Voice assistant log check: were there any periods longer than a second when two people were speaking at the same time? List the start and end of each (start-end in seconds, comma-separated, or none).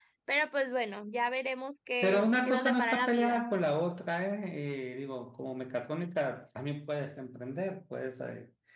2.0-3.5